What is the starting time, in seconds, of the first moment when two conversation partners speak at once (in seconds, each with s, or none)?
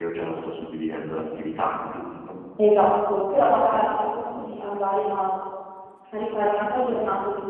none